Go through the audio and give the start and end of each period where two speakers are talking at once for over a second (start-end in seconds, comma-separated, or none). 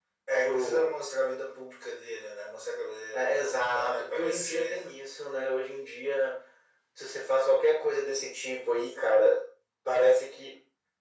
3.1-4.8